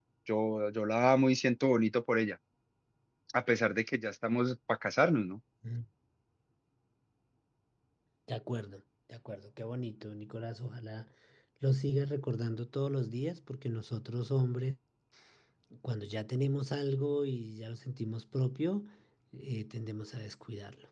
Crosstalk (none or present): none